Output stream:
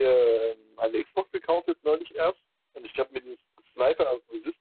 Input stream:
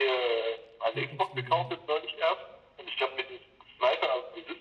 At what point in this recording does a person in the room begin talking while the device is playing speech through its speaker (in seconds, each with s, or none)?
0.9 s